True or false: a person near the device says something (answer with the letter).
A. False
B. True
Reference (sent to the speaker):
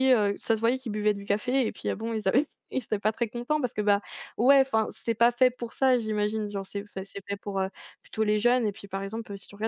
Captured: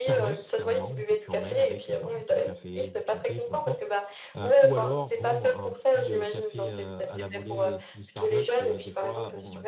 B